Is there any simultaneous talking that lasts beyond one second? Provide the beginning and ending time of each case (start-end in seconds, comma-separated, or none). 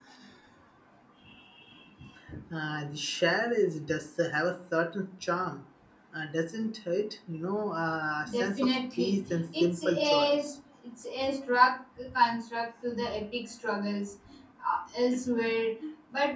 8.3-10.4